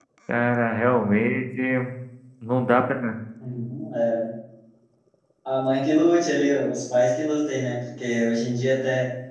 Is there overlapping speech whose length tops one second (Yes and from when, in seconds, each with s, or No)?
No